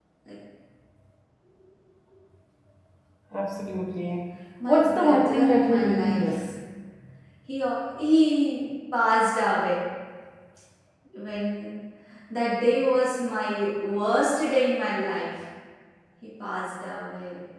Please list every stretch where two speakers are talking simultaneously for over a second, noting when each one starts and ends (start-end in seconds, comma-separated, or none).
4.7-6.2